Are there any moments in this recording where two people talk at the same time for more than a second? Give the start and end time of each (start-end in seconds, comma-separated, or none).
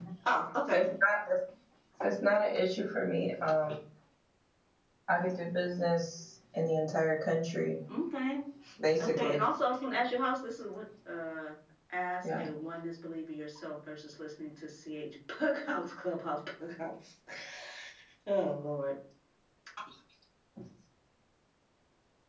none